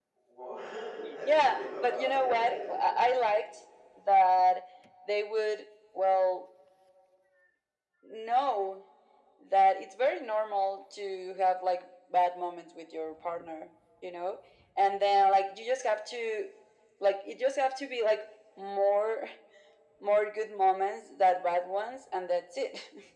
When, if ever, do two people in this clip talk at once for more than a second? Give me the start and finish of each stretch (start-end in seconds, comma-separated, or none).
1.2-2.8